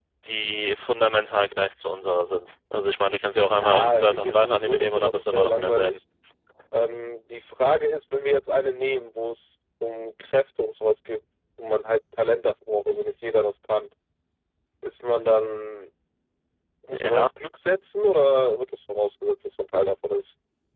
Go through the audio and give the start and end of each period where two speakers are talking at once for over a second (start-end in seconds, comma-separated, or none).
3.5-6.0